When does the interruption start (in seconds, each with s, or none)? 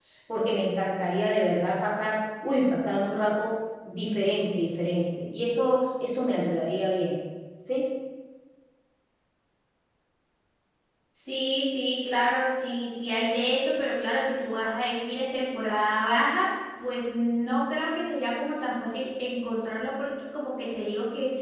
none